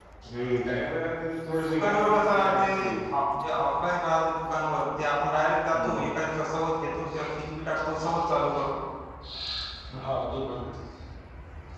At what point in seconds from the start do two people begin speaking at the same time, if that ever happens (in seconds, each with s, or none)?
1.7 s